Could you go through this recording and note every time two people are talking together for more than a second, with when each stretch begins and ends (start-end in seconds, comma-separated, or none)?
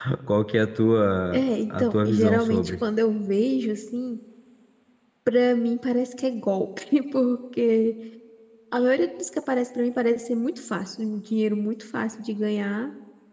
1.3-2.7